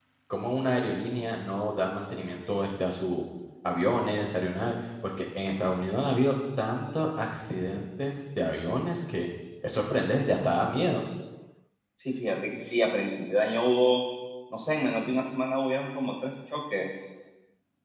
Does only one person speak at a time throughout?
Yes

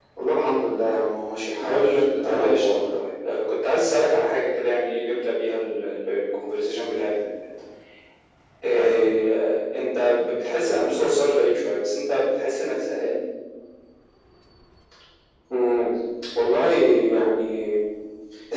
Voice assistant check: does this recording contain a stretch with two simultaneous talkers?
Yes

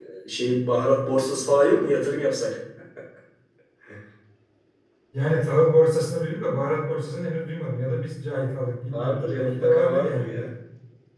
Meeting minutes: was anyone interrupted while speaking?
Yes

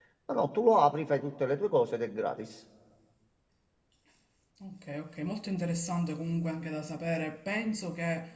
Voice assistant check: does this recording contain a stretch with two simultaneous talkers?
No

